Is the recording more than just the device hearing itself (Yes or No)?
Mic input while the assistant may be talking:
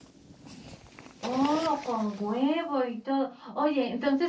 Yes